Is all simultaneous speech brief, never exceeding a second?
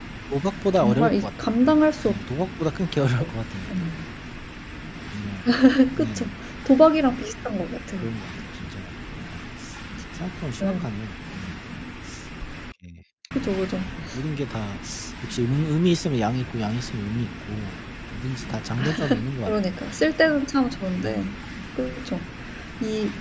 No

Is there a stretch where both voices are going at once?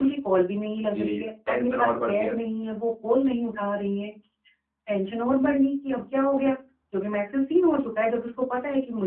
Yes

